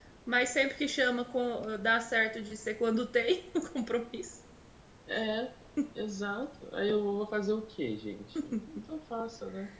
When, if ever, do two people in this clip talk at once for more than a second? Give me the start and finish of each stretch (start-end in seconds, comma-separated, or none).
none